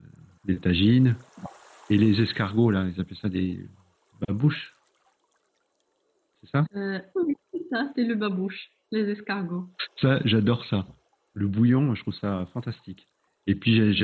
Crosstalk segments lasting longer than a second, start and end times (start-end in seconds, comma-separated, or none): none